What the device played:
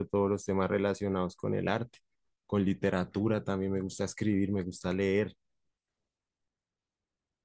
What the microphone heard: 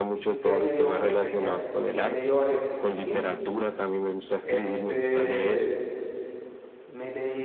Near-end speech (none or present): present